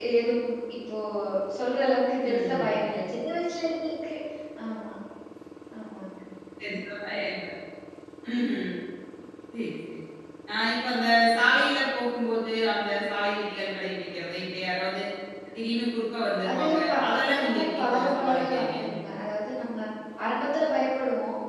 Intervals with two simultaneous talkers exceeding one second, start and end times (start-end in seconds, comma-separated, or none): 16.5-18.8